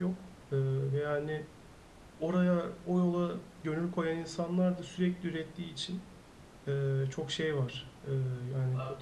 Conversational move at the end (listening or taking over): taking over